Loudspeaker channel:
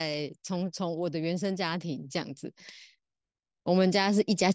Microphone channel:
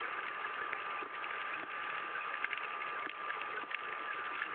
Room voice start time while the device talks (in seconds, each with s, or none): none